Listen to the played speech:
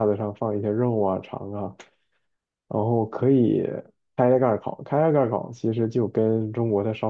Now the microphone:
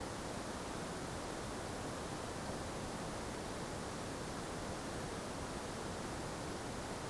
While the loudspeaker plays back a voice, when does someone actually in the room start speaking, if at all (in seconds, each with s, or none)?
none